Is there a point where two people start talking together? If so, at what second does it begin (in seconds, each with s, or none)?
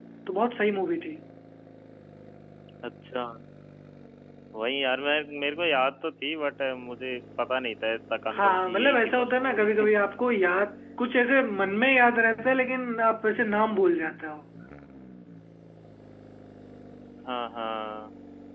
8.3 s